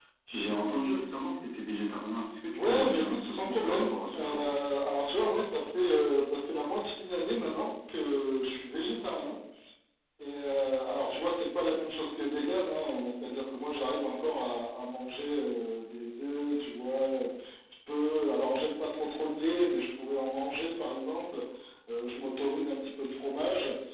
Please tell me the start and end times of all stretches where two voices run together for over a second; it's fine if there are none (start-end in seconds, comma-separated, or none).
2.5-4.5